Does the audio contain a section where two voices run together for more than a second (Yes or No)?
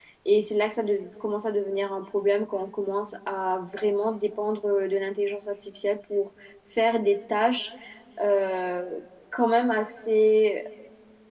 No